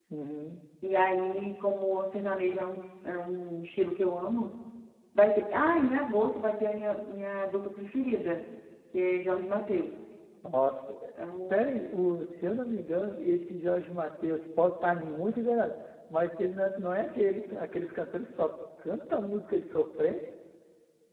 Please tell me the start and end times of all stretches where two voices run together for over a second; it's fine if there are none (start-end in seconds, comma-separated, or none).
none